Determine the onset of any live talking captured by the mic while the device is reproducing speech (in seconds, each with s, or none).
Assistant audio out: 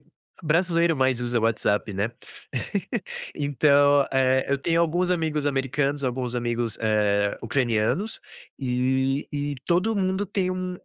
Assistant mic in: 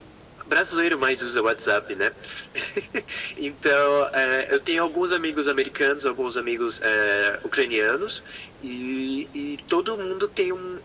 none